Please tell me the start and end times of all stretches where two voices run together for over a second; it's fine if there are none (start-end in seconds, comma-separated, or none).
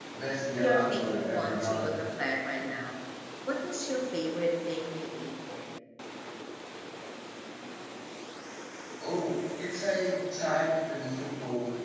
0.6-1.9